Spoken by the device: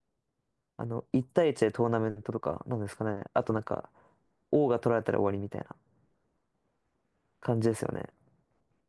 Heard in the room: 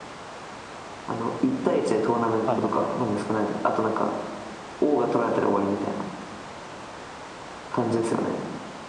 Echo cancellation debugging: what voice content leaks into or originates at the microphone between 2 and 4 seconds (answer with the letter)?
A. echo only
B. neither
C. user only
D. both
D